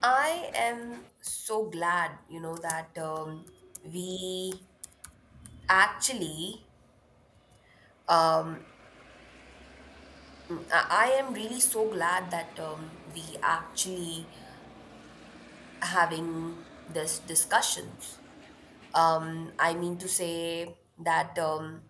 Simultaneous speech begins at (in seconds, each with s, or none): none